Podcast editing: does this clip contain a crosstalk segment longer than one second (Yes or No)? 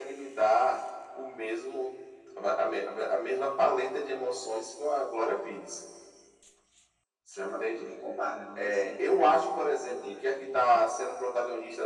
No